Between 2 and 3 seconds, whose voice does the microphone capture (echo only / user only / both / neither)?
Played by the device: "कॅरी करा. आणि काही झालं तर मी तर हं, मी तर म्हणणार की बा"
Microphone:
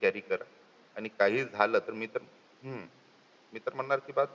echo only